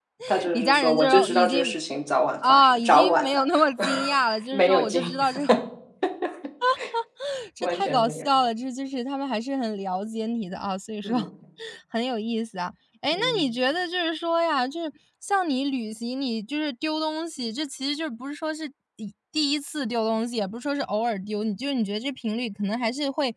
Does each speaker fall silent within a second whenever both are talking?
No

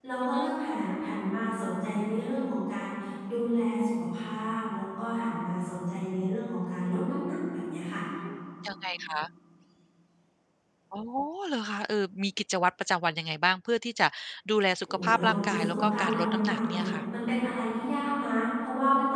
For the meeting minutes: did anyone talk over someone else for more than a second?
Yes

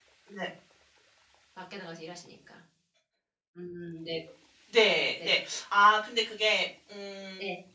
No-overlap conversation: Yes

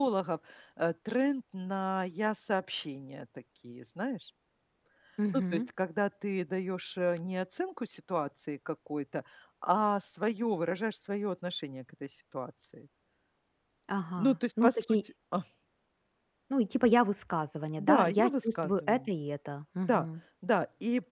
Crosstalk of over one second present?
Yes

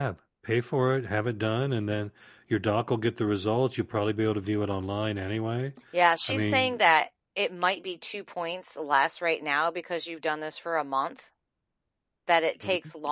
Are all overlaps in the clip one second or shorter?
Yes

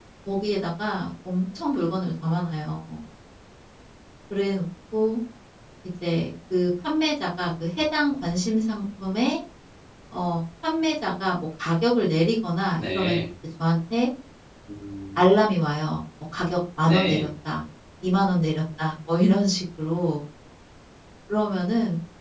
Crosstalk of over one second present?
No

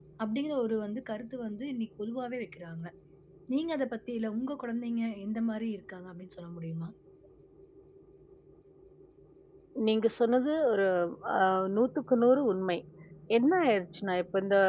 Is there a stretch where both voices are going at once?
No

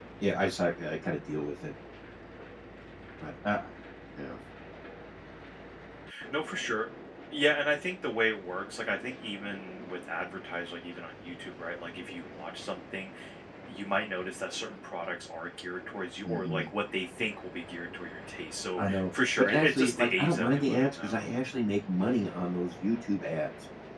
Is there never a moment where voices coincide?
No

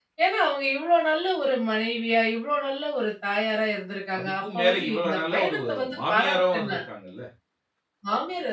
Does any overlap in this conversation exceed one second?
Yes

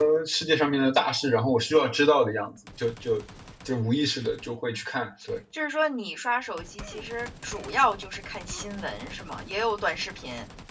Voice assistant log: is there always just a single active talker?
Yes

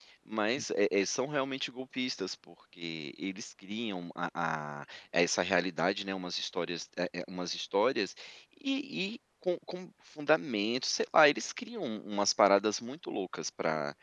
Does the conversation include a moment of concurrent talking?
No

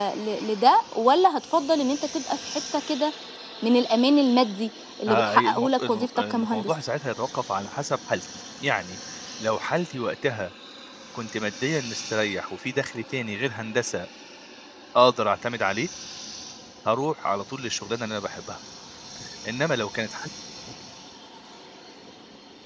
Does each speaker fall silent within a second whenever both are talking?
No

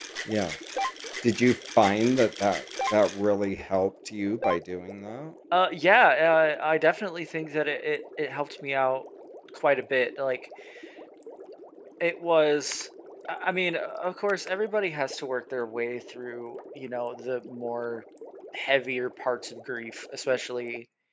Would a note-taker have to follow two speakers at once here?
No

